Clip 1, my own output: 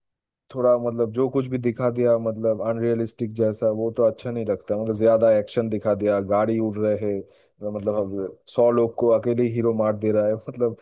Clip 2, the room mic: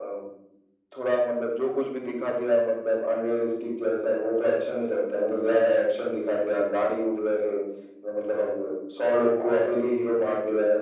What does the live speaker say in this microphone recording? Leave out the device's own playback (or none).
none